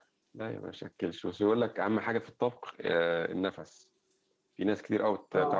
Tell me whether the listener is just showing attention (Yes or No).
Yes